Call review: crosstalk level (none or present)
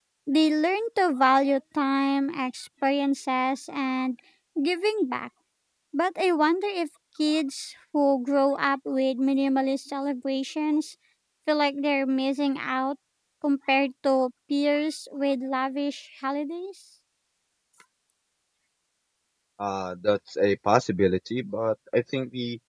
none